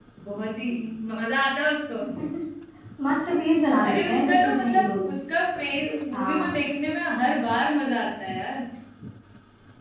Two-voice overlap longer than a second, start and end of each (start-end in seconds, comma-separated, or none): 3.8-5.1